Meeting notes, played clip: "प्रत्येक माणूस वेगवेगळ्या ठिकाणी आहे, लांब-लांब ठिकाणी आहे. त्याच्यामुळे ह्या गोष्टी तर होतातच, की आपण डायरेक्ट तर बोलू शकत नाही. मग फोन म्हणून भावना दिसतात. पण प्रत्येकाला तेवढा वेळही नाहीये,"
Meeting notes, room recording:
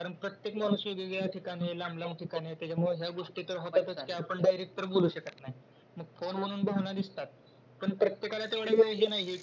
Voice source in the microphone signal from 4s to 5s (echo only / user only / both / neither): both